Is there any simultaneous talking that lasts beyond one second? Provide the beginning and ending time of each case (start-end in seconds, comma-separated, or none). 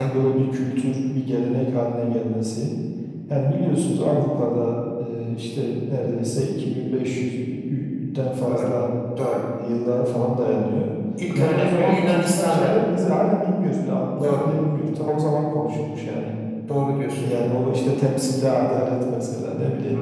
11.3-12.8